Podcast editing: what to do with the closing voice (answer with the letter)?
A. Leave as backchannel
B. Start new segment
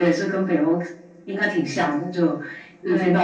A